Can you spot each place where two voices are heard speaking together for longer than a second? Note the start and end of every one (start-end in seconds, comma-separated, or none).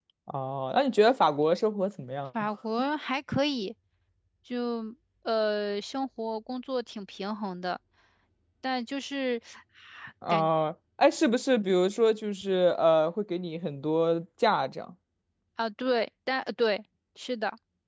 none